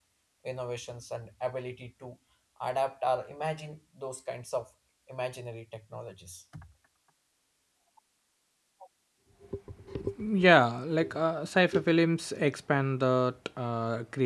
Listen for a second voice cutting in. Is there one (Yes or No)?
No